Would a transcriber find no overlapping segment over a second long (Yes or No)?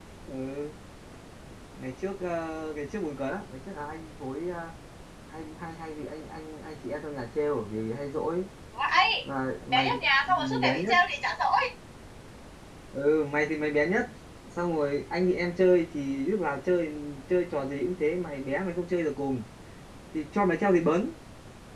No